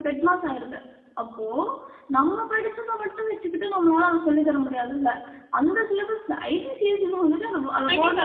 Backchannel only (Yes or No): No